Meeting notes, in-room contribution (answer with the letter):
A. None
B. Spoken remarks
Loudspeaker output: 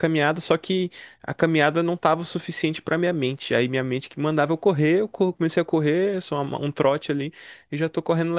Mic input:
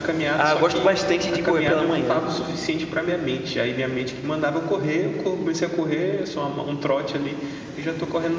B